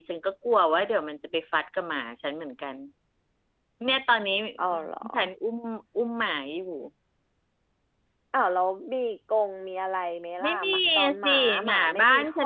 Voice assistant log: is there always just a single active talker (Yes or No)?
No